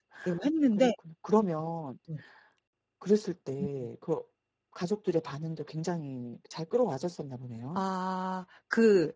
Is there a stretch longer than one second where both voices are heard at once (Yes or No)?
No